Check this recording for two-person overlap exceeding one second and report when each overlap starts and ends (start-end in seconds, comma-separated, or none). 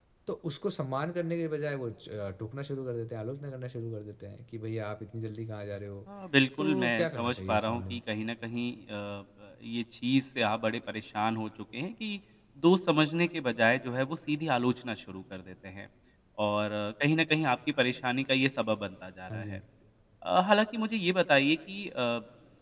6.6-8.0